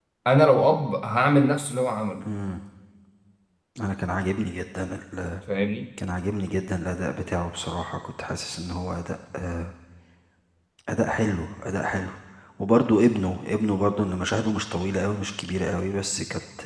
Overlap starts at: none

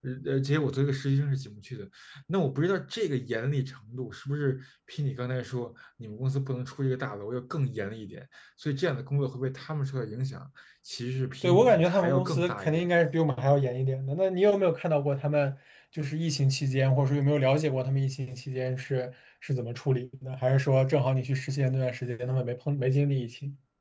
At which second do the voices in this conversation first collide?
11 s

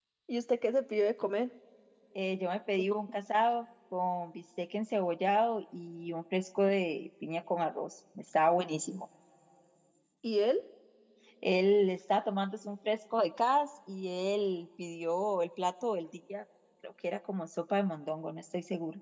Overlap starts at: none

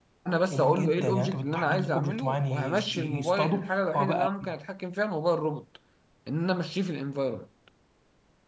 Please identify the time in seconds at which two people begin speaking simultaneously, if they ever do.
1 s

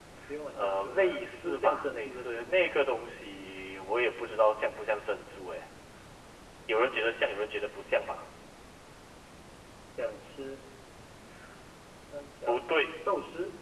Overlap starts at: 1 s

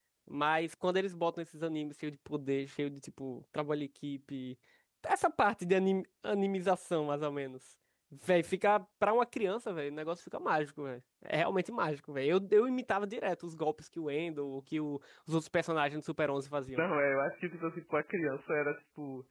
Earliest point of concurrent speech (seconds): none

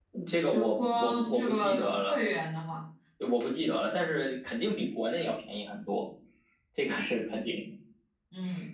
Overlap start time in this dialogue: 1 s

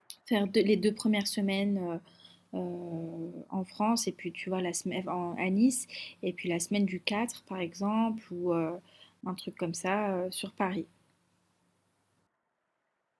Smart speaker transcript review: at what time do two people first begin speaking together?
none

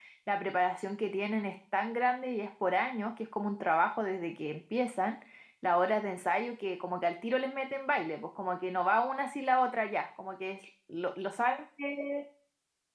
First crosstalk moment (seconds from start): none

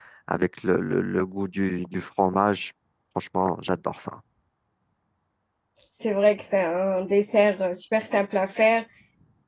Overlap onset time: none

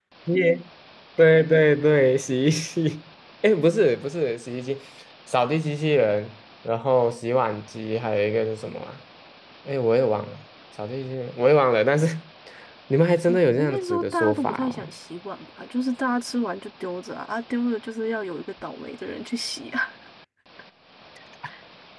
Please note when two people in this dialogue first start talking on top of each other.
14 s

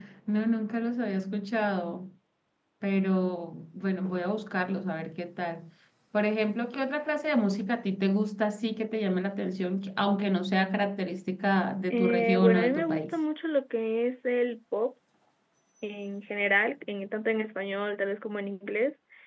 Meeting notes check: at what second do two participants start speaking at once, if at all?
12 s

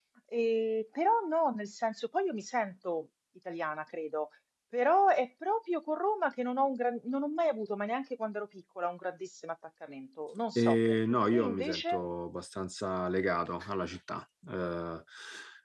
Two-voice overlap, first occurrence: 11 s

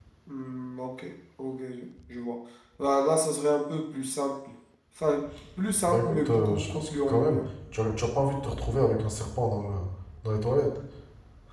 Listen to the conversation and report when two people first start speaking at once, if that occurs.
6 s

